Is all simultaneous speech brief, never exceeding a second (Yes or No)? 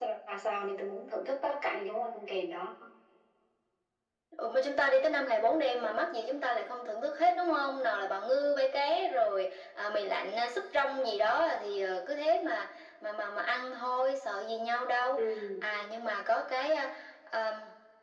Yes